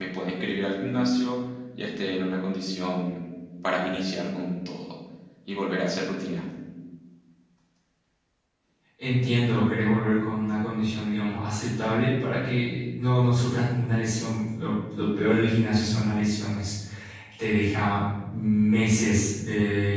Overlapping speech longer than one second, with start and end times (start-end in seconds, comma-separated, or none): none